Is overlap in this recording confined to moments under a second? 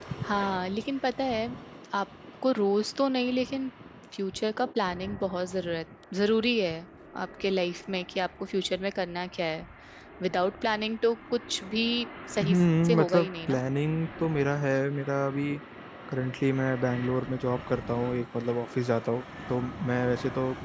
No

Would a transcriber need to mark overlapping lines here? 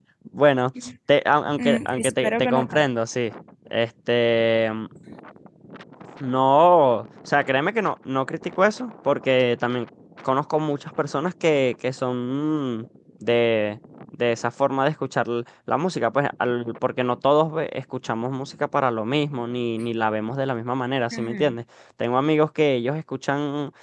Yes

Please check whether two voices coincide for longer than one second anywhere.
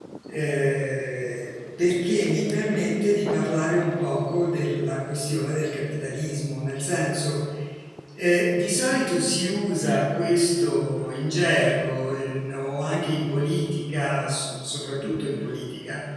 No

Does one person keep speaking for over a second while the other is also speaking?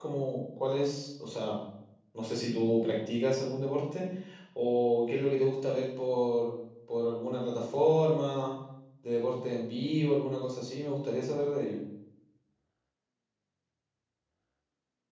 No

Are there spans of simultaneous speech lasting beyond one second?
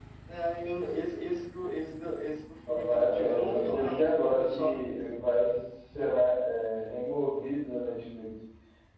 Yes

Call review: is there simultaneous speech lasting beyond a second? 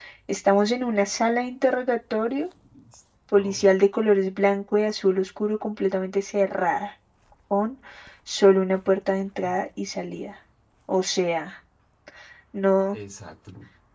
No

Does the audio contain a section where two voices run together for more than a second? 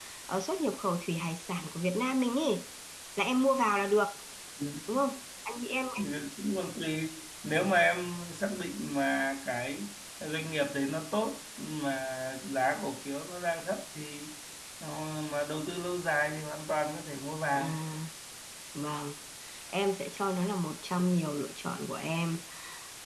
No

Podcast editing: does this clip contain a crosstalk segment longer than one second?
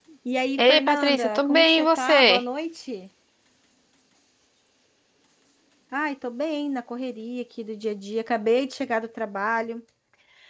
Yes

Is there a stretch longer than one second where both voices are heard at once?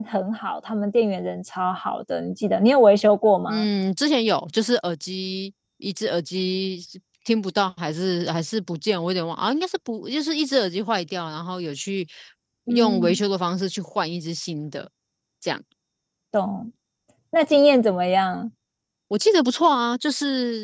No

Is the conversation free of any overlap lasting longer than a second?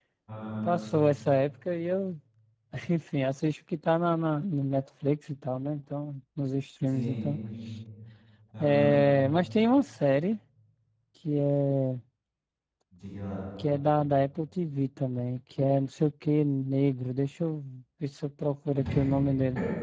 Yes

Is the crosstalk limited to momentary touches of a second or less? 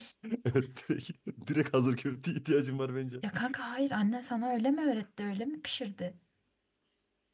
Yes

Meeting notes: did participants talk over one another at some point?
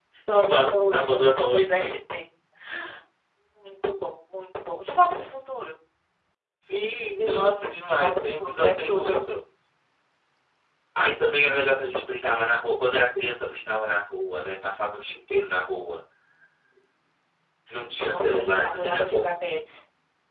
Yes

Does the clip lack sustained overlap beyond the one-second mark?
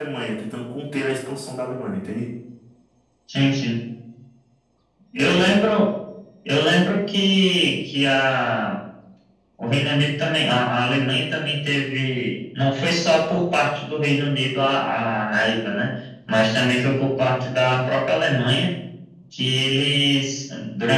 Yes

